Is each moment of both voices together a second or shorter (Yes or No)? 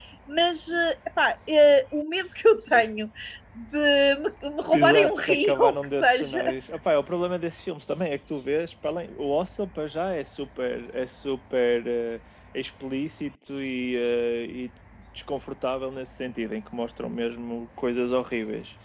No